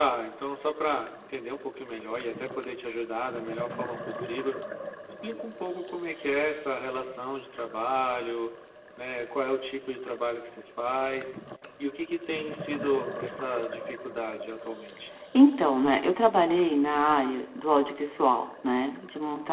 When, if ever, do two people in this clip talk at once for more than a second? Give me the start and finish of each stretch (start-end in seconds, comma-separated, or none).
none